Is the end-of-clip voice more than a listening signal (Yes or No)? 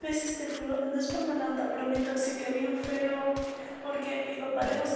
No